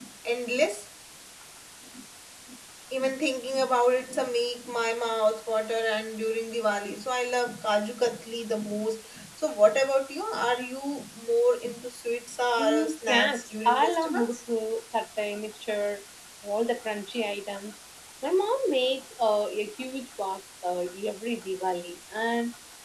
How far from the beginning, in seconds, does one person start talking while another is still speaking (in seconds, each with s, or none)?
12.6 s